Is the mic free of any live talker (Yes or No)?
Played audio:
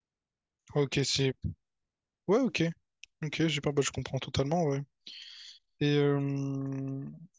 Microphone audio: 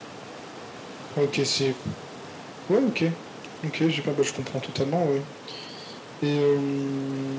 Yes